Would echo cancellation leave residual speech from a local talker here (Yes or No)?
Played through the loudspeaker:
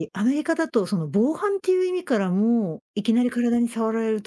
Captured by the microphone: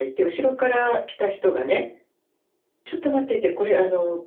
Yes